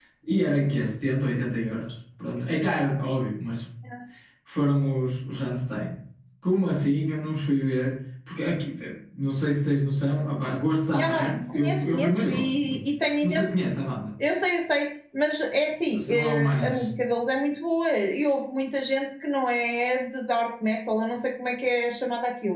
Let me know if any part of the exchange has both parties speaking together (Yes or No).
Yes